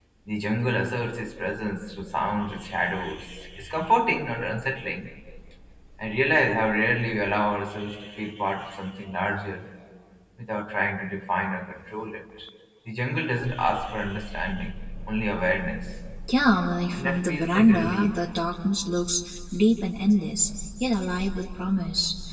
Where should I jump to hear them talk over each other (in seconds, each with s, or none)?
16.9 s